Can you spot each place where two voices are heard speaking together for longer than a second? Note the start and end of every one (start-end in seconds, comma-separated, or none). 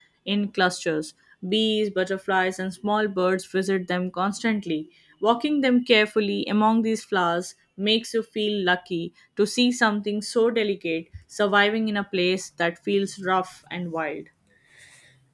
none